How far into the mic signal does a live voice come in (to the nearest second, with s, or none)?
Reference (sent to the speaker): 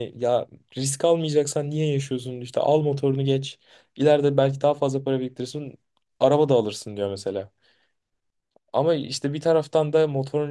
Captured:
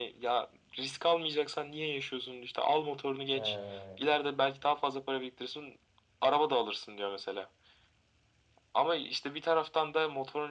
3 s